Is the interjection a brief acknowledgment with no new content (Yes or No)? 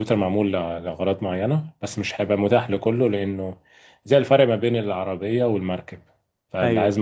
Yes